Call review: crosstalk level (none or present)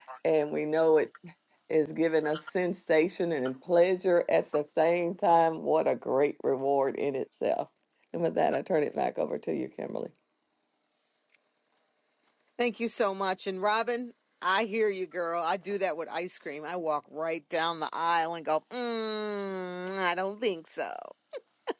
none